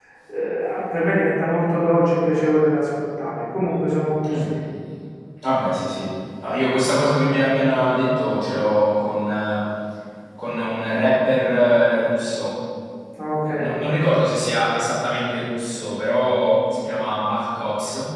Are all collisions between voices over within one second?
Yes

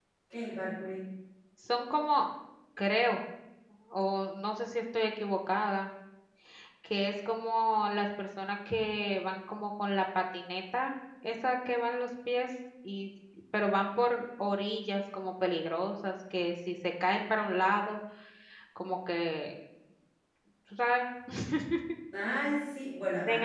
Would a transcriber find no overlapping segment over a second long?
Yes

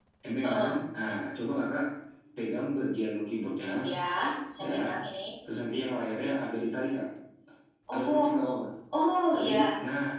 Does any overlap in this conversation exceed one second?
No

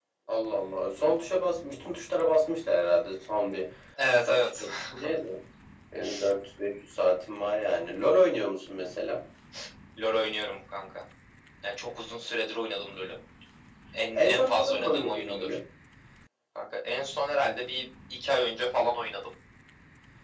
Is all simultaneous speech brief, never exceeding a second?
No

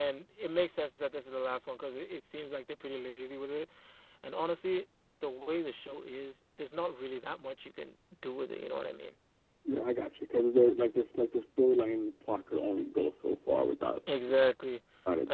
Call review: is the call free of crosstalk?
Yes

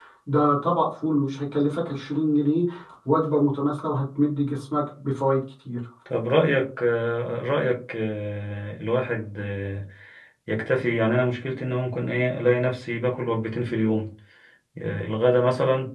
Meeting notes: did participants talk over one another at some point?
No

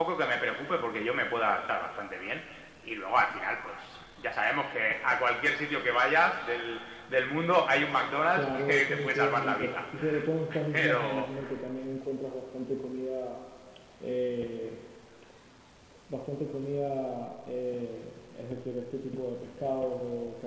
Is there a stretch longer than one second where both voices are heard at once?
Yes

